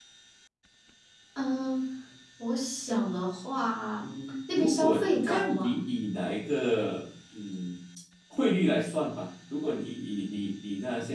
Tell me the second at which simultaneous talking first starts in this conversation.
4.5 s

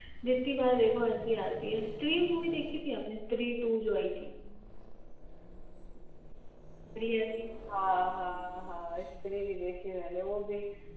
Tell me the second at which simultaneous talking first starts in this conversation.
none

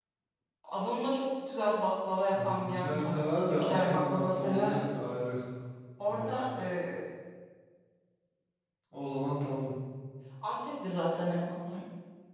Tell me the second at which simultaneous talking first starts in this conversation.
2.4 s

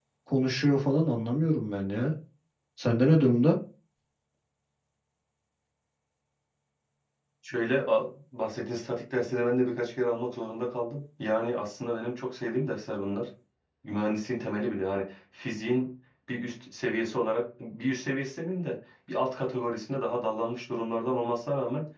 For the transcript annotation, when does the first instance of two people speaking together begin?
none

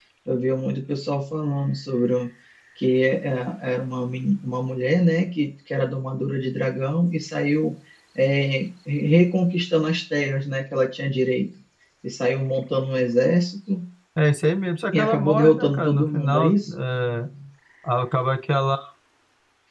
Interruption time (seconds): 14.9 s

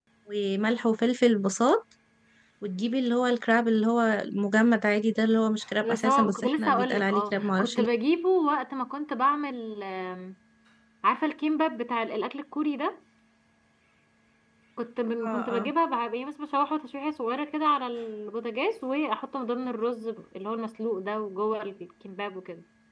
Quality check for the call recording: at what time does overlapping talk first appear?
5.8 s

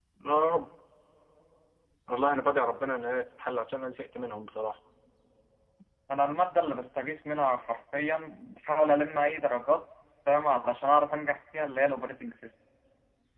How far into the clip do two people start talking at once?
none

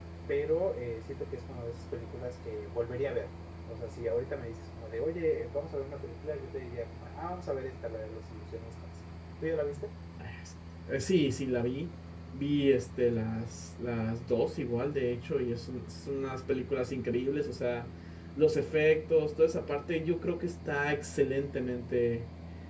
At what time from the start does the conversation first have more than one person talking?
none

